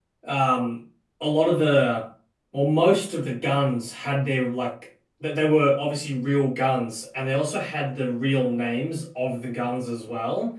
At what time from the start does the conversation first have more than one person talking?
none

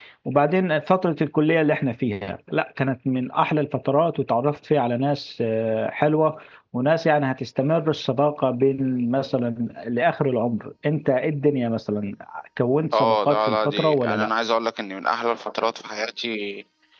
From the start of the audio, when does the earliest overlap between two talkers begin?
12.9 s

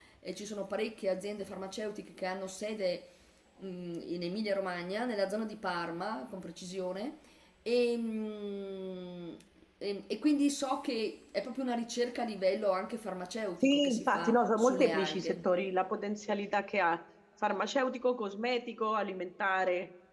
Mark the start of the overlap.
13.6 s

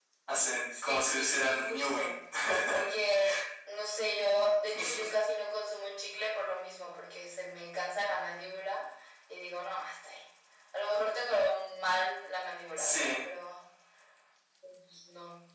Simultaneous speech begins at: 0.8 s

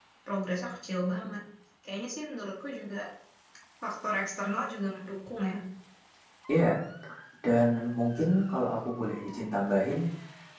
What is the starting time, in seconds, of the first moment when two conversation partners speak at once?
none

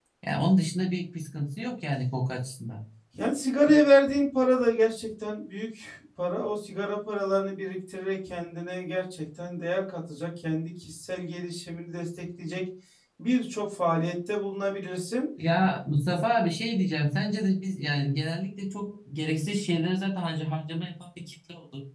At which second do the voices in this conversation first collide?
none

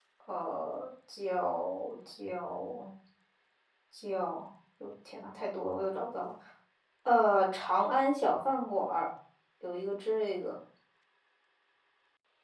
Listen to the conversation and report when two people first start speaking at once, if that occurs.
none

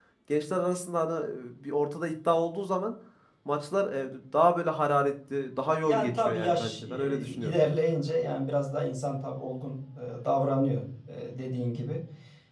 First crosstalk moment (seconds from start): 5.8 s

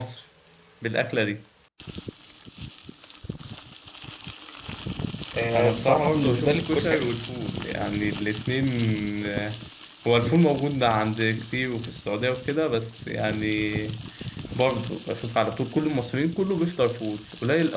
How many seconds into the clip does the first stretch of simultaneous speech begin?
5.6 s

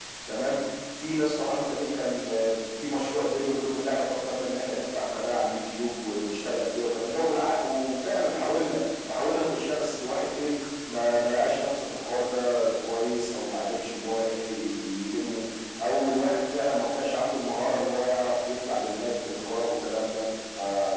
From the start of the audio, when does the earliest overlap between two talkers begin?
none

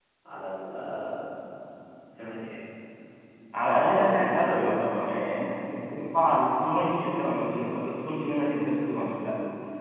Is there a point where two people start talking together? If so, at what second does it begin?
3.6 s

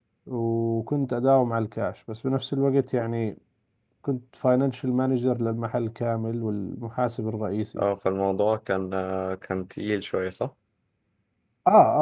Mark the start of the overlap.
none

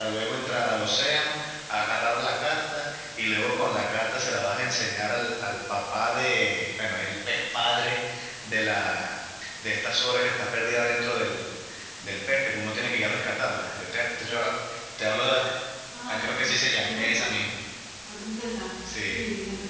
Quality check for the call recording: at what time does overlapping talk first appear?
16.1 s

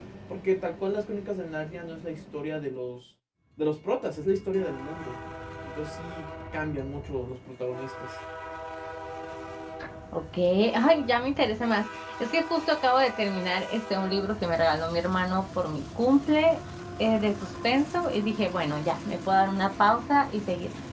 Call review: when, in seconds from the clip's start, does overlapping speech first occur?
none

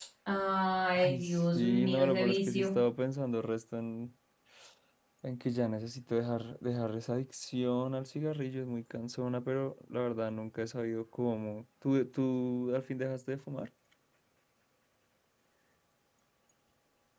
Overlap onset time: 0.9 s

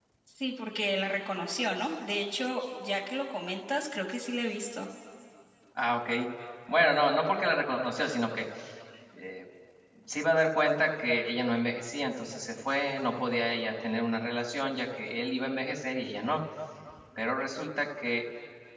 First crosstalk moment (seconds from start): none

